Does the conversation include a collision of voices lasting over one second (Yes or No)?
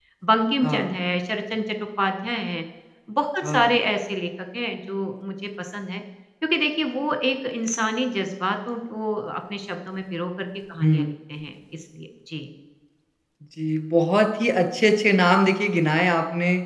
No